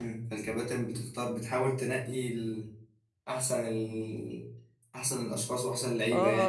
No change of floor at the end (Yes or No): No